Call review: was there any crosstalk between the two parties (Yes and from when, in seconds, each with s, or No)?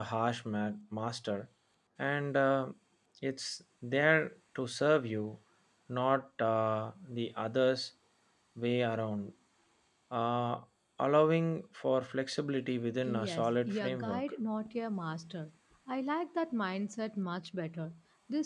Yes, from 13.0 s